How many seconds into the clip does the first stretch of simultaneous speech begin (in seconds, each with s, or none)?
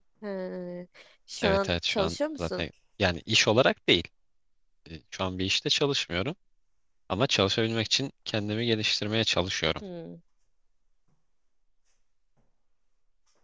1.4 s